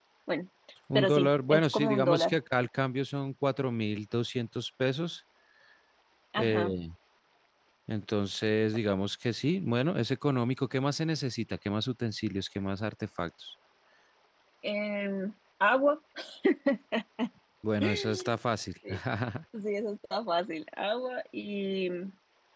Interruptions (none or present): present